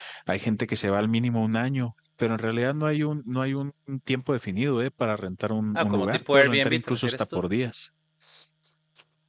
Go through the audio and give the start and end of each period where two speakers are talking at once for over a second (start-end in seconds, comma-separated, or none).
5.8-7.4